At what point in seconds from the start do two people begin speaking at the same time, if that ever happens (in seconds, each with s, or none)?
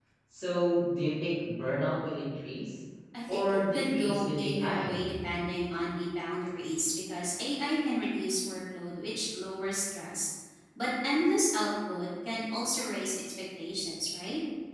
3.3 s